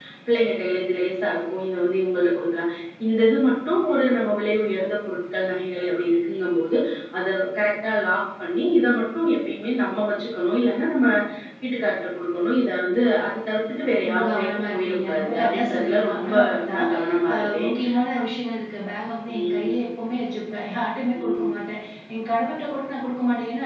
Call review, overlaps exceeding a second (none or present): present